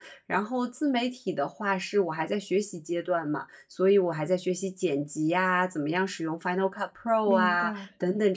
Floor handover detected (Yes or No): No